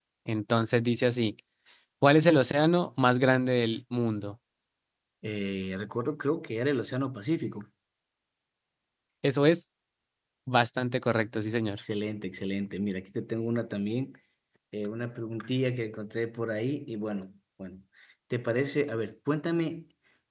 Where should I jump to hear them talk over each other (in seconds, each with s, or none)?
none